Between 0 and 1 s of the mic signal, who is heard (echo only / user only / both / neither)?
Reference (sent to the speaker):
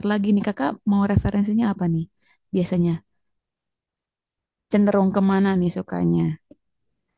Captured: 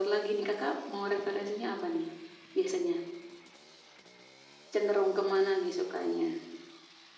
echo only